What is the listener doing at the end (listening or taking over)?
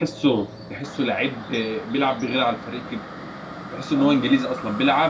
listening